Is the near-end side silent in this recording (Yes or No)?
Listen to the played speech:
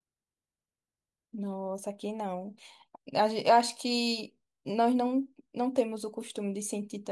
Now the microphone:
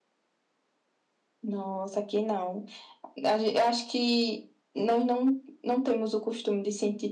Yes